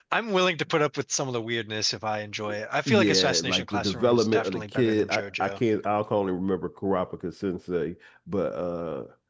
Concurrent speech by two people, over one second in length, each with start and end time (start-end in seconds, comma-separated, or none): 2.9-5.6